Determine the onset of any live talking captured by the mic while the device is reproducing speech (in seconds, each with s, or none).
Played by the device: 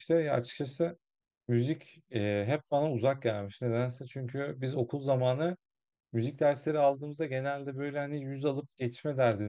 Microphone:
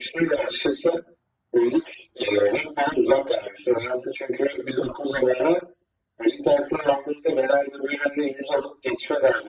none